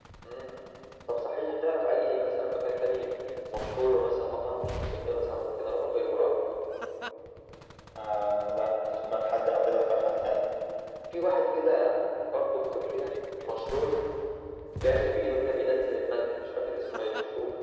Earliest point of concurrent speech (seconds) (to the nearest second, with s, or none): none